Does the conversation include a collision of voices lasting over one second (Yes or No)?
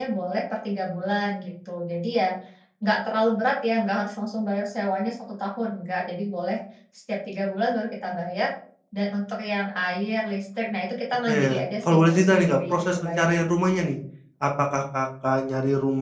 Yes